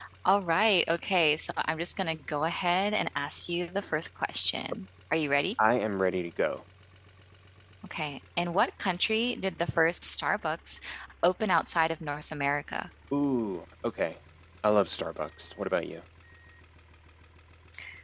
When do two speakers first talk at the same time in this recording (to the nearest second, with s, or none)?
none